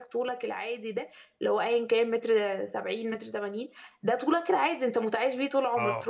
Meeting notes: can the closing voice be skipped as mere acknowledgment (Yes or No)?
Yes